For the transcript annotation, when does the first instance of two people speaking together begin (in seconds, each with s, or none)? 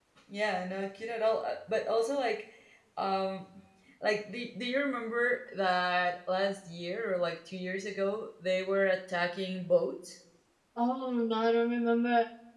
none